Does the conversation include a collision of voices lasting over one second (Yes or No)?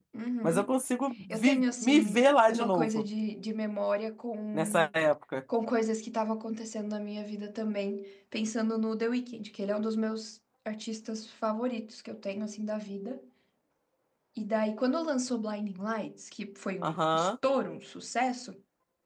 Yes